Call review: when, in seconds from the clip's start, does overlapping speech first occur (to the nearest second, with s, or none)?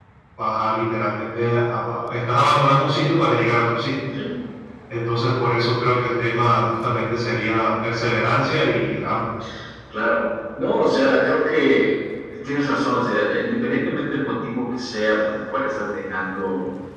none